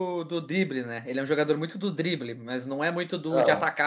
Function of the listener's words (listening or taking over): listening